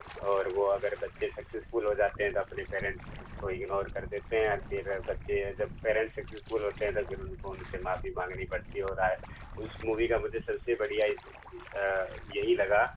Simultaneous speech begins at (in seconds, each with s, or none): none